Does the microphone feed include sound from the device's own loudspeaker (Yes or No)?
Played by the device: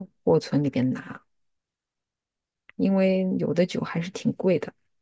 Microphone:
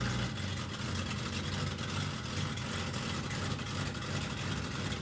No